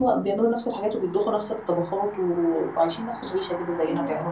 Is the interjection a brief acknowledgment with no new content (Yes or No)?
No